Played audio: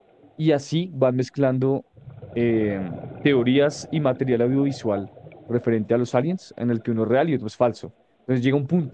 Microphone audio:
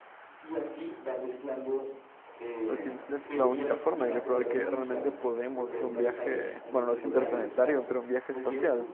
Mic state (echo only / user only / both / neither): both